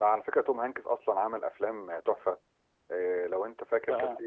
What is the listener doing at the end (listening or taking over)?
listening